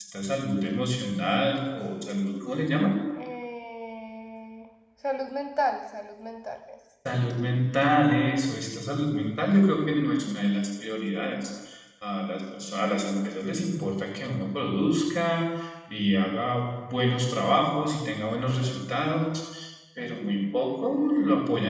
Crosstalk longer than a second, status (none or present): none